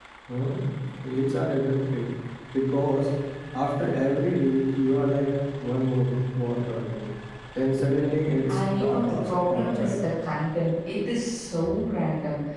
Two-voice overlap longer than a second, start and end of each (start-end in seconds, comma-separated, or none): 8.5-9.9